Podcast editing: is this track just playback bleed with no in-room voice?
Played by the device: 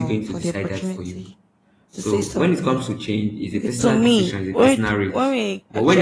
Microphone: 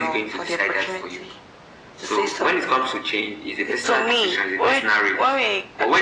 Yes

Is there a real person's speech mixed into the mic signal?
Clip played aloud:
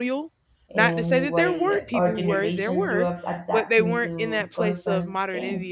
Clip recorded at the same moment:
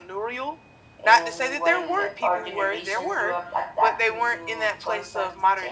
No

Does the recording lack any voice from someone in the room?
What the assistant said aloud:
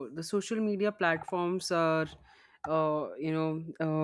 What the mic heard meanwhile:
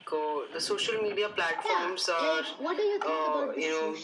No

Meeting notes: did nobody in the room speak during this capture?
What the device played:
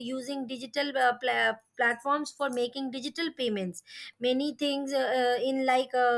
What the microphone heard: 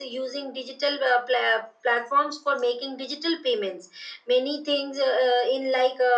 Yes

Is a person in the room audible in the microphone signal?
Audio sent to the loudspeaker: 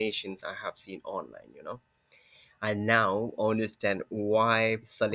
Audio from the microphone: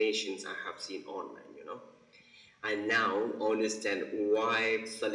No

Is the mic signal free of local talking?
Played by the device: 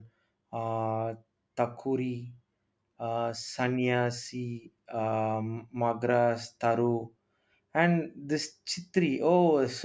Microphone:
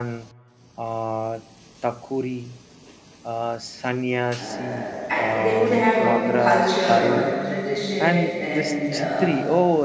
No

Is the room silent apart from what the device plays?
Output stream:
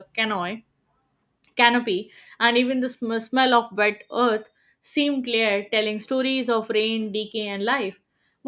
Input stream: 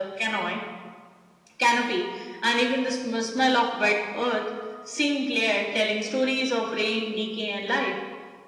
Yes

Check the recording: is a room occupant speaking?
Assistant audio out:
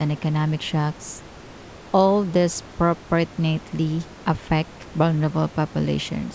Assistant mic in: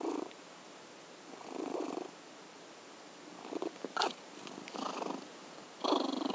No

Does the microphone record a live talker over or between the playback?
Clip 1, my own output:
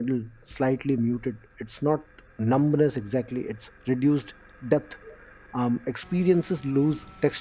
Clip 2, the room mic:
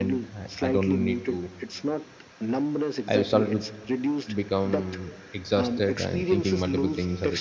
Yes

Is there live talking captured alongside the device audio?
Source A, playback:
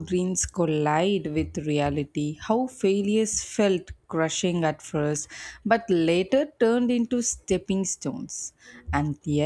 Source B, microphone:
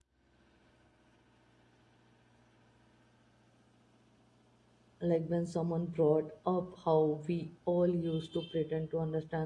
Yes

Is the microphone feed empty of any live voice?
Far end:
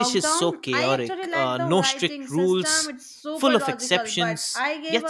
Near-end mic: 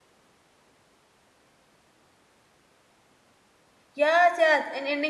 No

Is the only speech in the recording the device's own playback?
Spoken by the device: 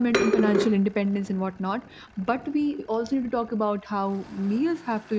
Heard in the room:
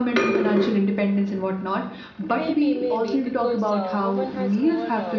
No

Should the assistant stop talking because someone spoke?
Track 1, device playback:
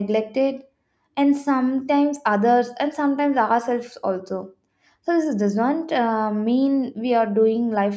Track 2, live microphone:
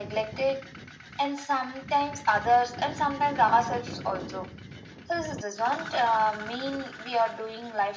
No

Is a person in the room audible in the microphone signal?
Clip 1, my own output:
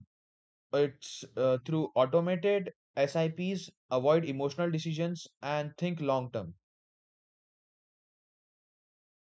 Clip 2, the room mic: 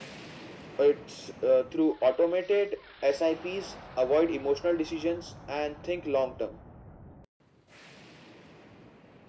No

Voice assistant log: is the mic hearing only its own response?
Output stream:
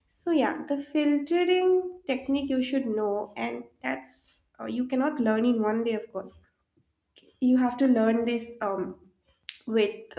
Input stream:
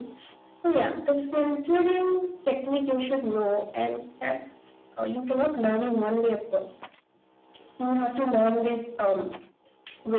Yes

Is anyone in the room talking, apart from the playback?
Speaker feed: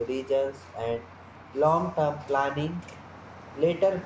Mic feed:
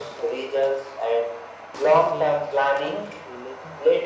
Yes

